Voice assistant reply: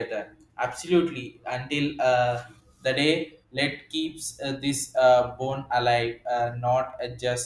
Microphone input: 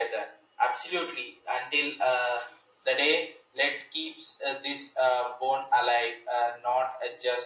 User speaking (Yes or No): No